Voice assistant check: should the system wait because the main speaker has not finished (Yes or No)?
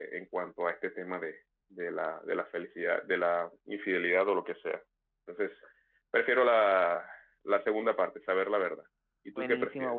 No